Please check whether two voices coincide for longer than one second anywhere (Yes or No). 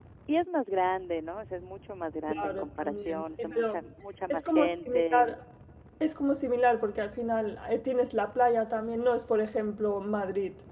Yes